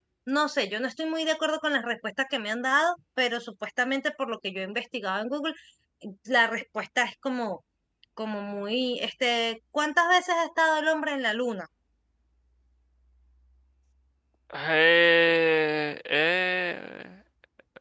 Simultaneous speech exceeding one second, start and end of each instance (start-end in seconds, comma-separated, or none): none